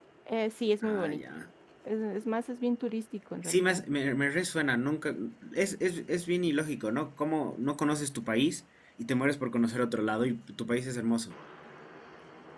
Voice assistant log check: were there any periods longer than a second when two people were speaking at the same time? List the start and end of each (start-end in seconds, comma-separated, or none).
none